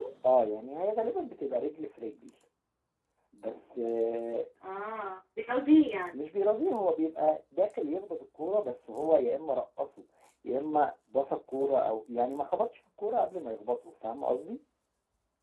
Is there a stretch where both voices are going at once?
No

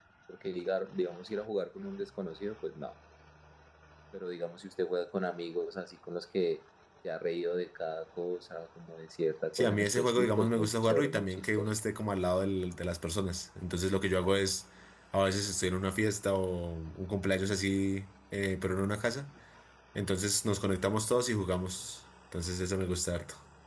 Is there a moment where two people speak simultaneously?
Yes, from 9.5 s

